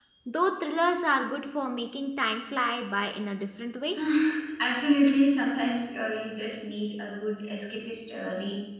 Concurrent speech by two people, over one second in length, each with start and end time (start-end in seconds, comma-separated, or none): none